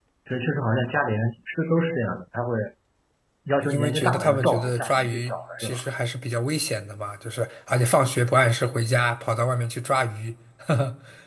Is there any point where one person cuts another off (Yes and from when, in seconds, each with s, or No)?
Yes, from 3.7 s